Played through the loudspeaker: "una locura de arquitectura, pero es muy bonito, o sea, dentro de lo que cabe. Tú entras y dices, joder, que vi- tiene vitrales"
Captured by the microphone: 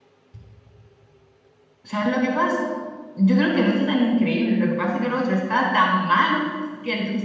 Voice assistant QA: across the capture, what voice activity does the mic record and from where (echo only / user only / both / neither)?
user only